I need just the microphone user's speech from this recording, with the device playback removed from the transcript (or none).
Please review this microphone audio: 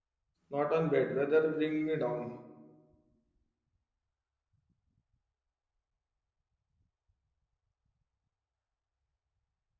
not on bed whether bring me down